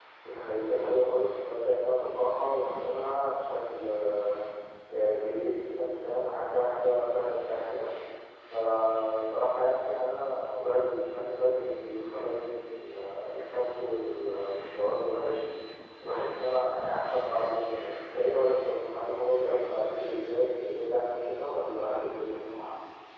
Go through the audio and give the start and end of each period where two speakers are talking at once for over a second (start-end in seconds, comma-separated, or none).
21.0-22.4